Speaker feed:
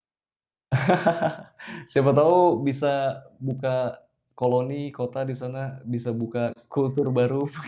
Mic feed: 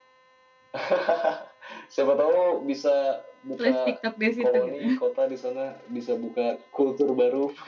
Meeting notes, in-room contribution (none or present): present